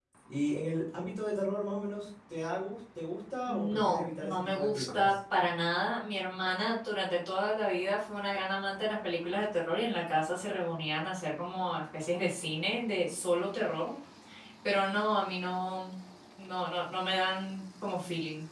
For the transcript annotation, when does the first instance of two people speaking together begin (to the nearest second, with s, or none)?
3 s